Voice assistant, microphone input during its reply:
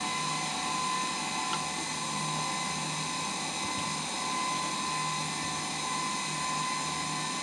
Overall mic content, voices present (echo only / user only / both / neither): neither